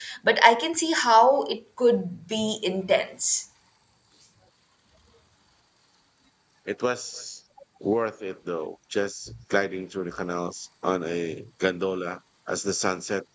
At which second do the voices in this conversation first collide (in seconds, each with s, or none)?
none